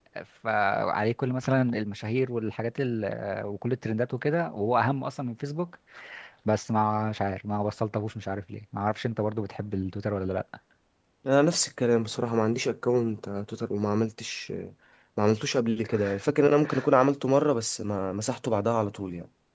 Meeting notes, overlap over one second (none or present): none